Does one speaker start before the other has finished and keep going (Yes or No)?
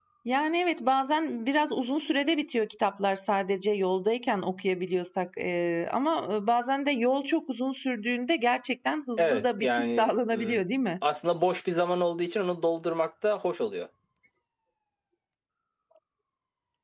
Yes